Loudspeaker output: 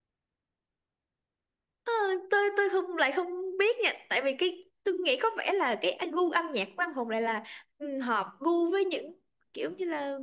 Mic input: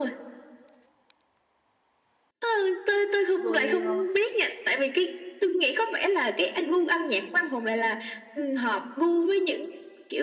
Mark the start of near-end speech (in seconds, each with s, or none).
3.4 s